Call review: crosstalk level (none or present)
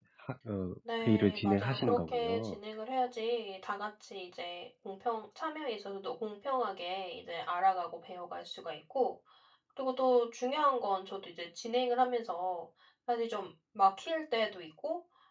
present